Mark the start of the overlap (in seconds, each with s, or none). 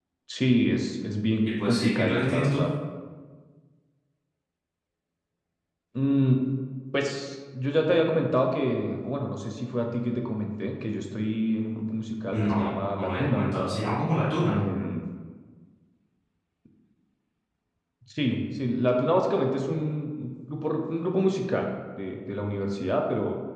1.4 s